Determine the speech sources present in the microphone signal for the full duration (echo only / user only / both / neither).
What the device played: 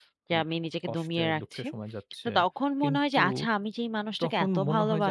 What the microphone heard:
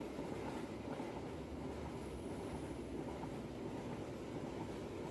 neither